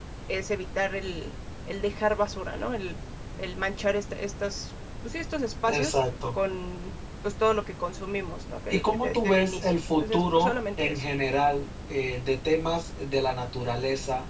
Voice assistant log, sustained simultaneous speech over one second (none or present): present